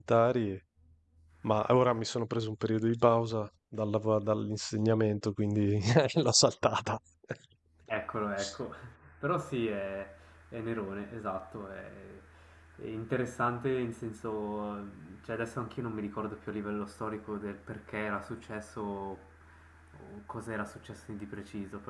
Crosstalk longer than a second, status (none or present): none